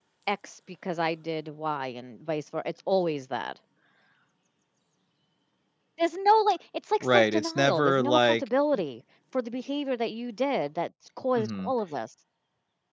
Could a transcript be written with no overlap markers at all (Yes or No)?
No